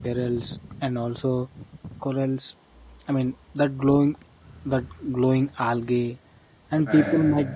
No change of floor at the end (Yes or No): Yes